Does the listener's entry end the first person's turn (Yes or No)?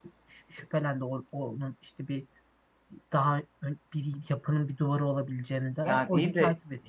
Yes